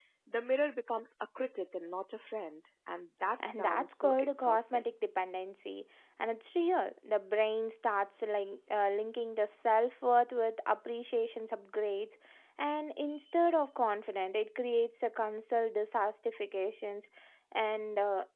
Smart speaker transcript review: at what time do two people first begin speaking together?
3.4 s

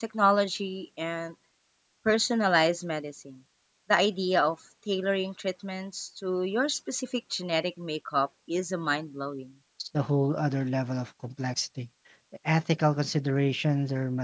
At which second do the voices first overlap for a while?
none

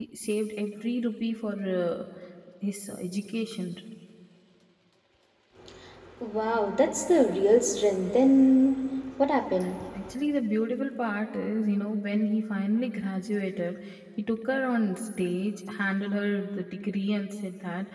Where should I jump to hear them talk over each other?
none

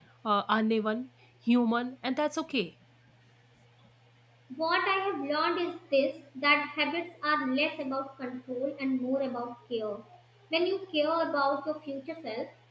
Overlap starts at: none

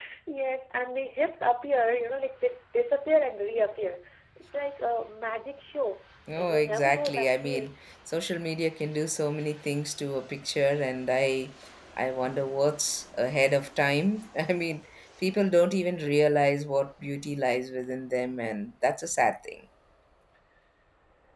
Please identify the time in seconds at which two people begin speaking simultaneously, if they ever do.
6.3 s

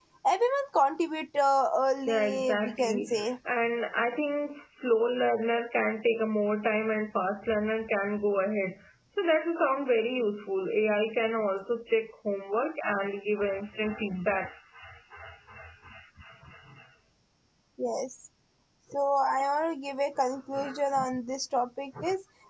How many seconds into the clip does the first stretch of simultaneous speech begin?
2.1 s

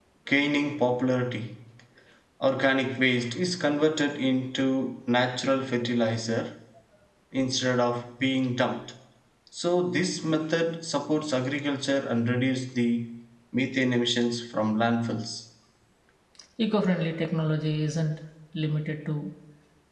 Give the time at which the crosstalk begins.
none

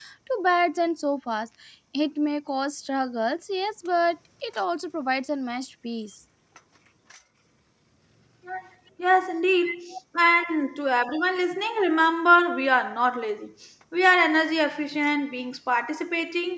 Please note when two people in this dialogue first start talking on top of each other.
none

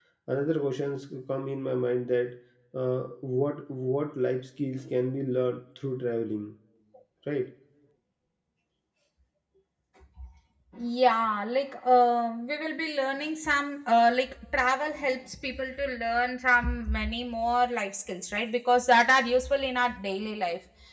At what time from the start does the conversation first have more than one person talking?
none

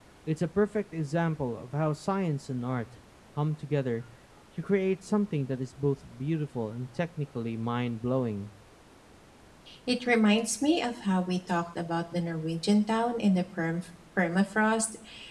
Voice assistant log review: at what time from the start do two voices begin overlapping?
none

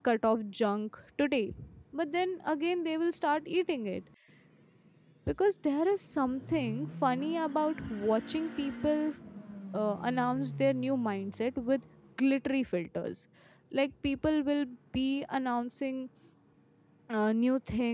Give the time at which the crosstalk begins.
none

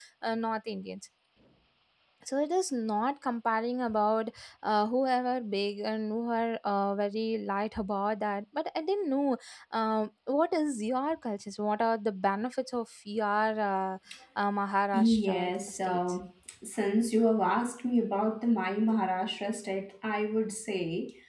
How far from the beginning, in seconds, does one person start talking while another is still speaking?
14.9 s

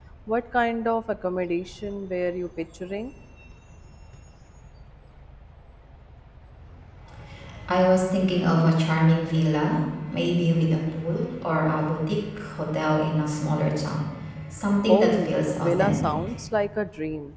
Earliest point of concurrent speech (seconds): 14.9 s

